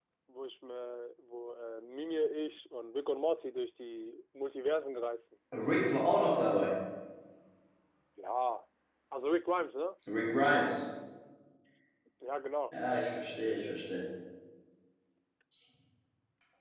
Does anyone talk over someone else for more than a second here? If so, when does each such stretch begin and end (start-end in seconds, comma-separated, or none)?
none